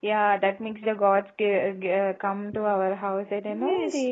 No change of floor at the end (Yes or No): No